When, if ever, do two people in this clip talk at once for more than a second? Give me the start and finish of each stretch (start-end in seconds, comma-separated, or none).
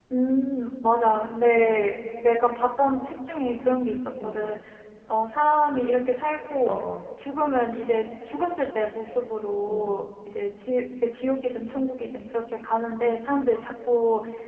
none